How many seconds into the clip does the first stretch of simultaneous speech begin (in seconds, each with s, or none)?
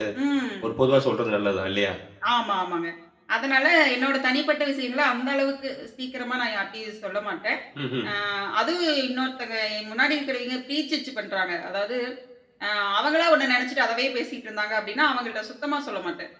none